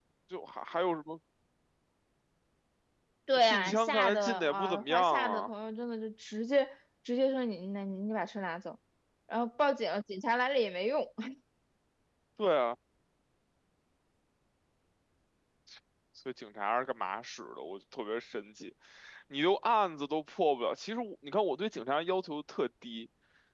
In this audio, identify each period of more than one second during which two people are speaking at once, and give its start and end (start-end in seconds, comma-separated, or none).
3.5-5.5